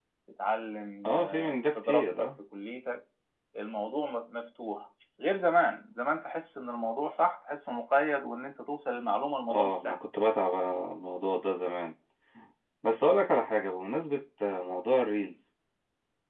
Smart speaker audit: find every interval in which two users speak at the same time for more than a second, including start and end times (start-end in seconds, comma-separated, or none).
1.1-2.3